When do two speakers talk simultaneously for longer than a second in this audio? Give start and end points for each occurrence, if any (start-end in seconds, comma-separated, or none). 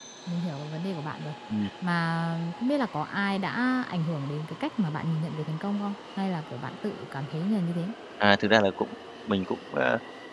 none